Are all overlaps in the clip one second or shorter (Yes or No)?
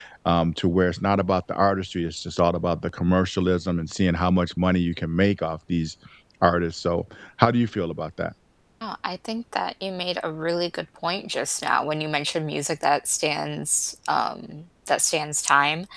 Yes